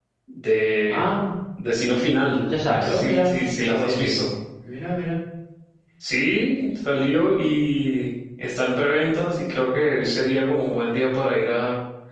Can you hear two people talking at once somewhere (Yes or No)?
Yes